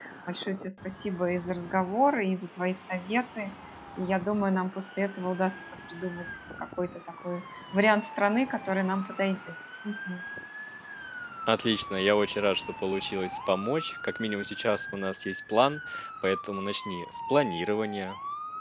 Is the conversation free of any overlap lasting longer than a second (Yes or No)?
Yes